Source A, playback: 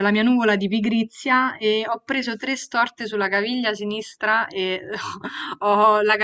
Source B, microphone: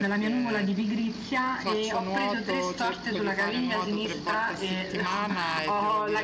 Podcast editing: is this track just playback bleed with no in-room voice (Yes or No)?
No